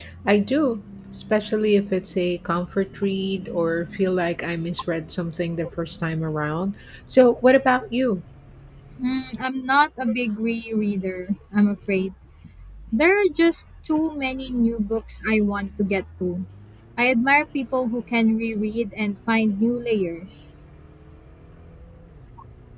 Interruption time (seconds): none

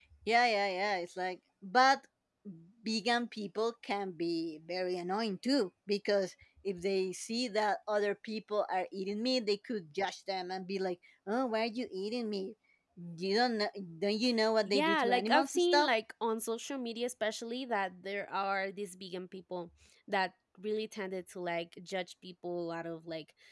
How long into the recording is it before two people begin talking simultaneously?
14.6 s

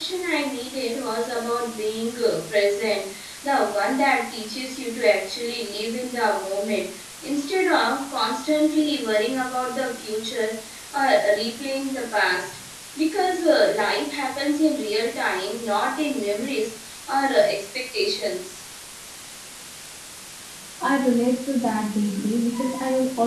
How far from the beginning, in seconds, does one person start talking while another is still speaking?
none

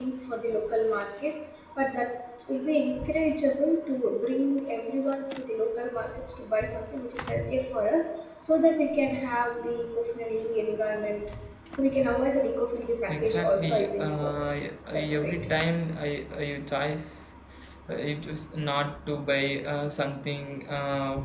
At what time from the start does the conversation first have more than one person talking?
13.1 s

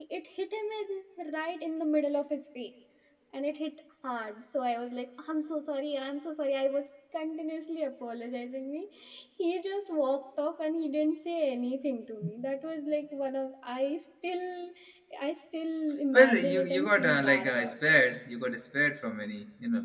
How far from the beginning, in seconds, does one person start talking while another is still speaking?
16.1 s

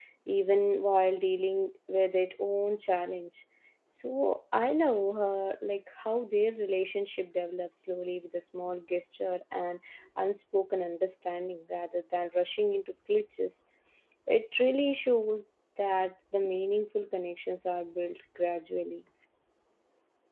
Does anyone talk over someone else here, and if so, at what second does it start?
none

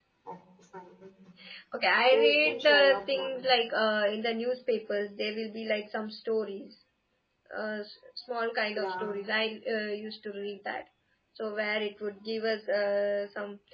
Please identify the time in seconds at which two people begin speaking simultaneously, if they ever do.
2.1 s

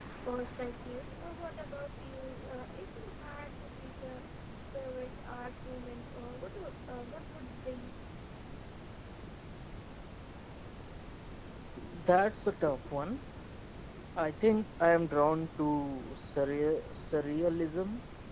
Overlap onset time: none

